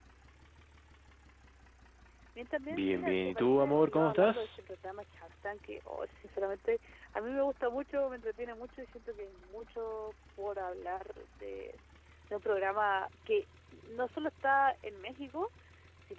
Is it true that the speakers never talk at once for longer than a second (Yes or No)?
No